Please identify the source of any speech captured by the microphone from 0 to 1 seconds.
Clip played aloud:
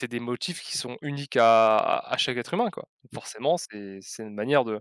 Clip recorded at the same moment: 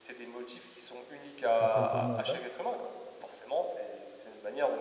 echo only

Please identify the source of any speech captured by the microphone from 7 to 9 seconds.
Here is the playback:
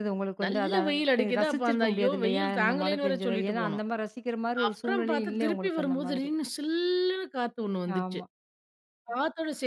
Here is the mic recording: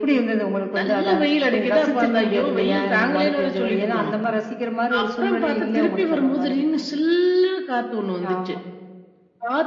echo only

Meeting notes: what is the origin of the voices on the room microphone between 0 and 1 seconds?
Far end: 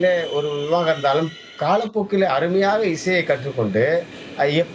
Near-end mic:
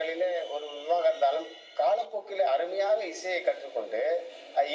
echo only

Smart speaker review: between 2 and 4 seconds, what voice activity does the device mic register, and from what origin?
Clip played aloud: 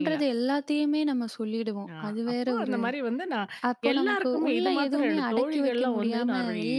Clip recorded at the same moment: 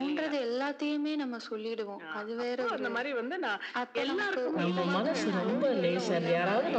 echo only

